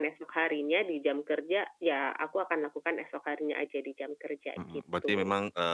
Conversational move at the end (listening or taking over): taking over